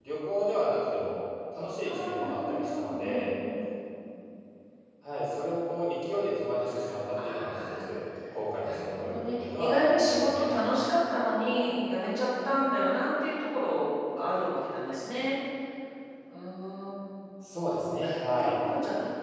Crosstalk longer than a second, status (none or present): present